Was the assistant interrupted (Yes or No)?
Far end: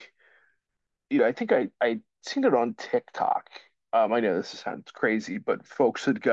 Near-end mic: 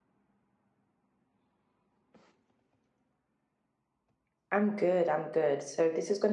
Yes